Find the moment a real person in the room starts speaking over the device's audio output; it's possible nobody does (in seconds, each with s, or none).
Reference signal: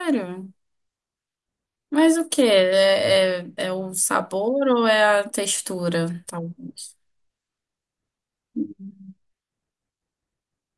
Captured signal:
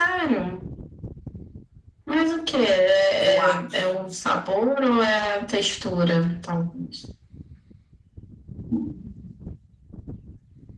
3.2 s